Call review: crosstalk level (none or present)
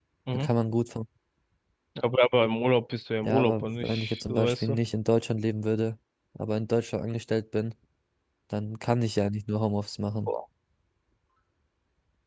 present